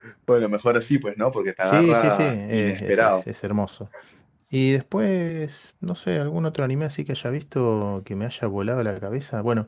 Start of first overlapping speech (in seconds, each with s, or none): 1.6 s